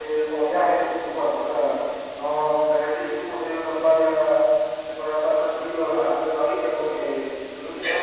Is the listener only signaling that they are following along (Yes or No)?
Yes